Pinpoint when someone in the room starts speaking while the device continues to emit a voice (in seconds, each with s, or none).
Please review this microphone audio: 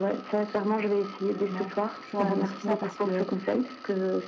1.1 s